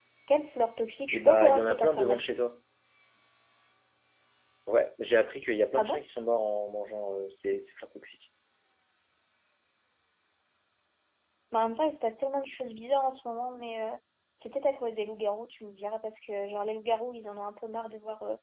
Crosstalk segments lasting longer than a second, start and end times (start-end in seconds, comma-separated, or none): 1.1-2.4